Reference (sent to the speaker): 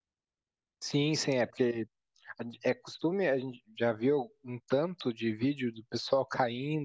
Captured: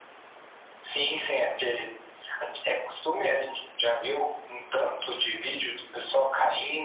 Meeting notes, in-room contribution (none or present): none